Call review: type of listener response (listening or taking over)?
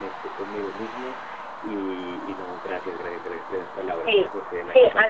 taking over